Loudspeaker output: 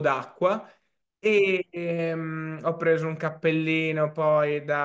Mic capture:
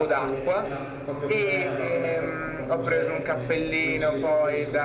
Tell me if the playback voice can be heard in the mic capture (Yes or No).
Yes